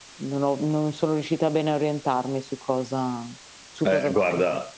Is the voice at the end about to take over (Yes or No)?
Yes